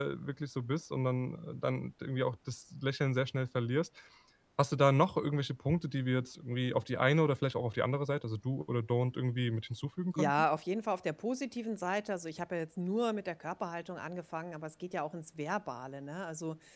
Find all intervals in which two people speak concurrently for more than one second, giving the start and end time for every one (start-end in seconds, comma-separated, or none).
none